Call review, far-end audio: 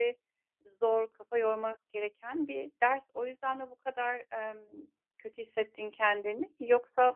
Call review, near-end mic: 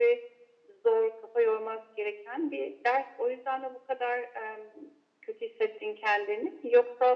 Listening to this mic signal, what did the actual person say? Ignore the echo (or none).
none